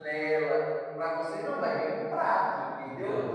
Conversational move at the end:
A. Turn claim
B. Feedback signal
B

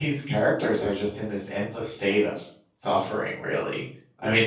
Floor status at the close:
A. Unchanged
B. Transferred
A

